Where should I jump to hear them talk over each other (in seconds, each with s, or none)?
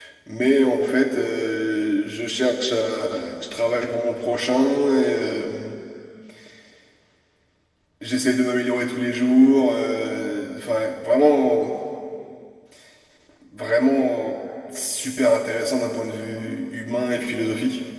none